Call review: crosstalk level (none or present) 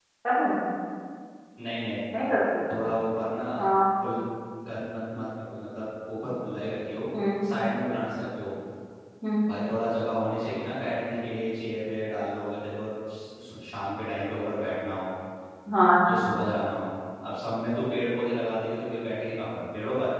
none